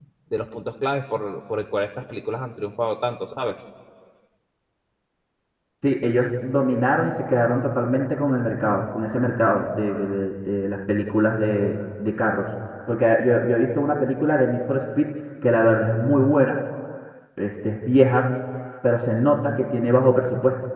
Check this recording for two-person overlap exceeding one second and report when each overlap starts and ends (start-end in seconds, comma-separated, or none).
none